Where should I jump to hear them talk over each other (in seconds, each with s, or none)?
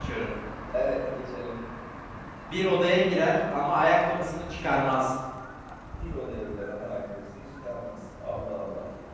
none